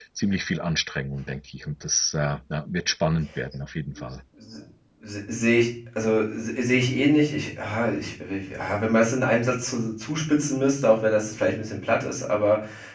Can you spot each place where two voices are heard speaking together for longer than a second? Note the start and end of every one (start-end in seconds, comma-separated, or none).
none